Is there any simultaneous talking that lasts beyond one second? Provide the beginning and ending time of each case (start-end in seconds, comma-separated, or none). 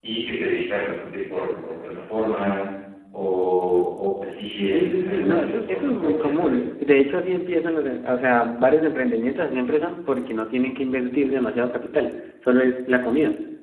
4.7-6.6